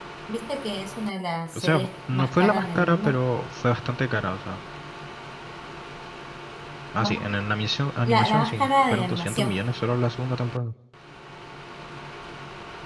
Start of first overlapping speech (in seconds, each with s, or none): 1.5 s